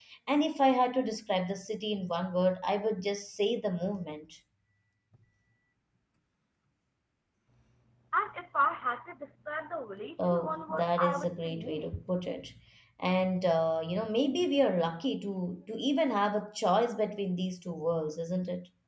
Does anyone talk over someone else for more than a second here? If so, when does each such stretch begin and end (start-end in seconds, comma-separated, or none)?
10.2-12.0